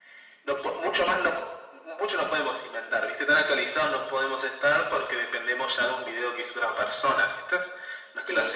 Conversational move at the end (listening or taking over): listening